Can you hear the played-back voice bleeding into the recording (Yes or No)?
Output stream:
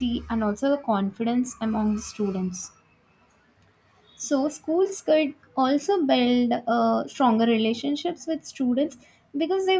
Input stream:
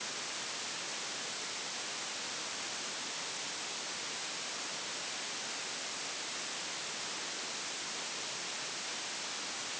No